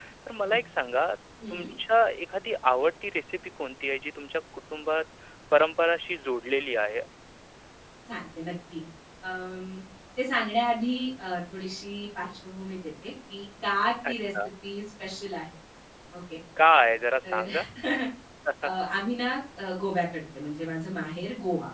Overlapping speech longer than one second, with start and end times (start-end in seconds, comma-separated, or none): none